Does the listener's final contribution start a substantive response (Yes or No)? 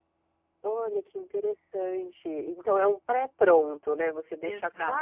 No